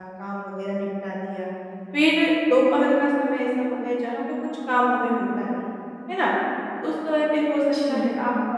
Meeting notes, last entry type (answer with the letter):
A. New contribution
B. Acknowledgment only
B